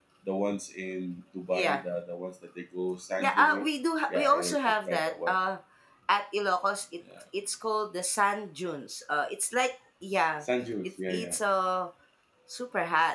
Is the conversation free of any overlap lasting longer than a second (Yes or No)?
No